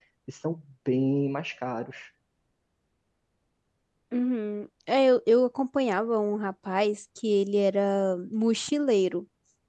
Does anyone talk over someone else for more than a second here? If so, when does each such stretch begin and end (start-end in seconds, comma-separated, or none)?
none